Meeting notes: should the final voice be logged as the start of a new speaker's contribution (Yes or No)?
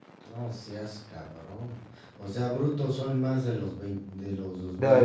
Yes